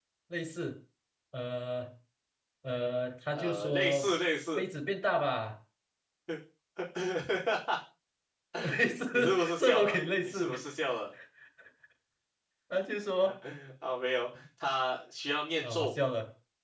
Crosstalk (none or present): present